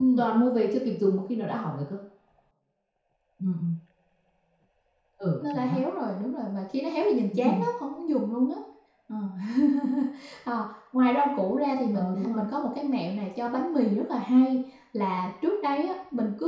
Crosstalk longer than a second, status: none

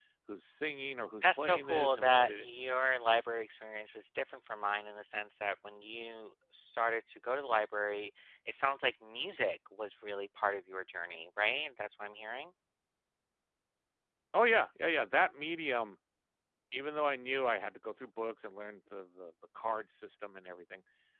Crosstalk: present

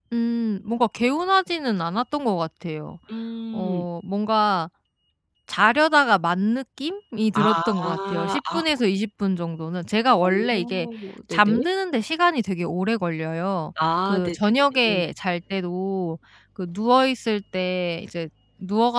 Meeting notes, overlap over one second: present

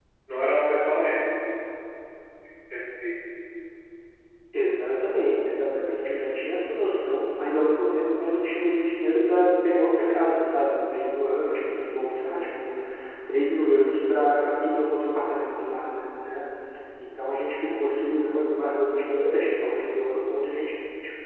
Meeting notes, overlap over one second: none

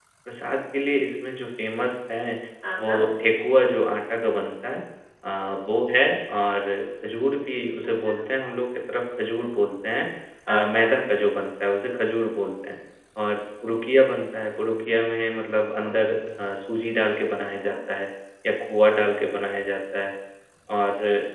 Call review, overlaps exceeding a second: none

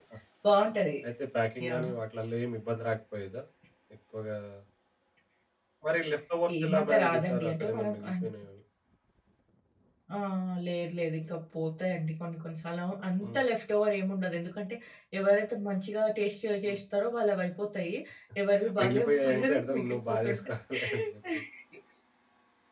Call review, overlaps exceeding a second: present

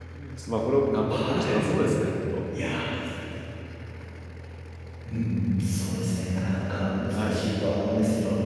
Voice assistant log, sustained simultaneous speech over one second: none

